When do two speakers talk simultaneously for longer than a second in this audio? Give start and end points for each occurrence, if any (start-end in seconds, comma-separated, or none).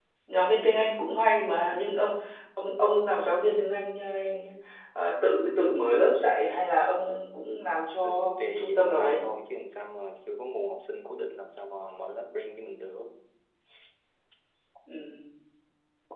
8.0-9.2